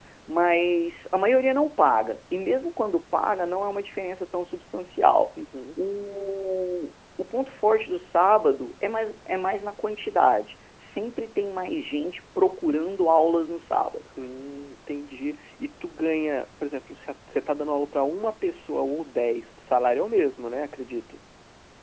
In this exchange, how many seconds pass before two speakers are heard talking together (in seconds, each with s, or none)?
none